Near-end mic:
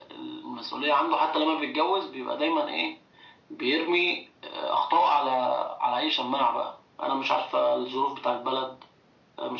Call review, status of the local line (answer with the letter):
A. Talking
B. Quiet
B